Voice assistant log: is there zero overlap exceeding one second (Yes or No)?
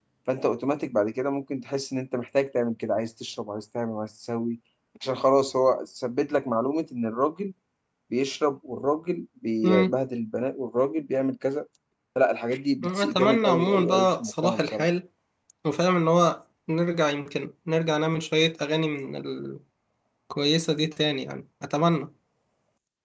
No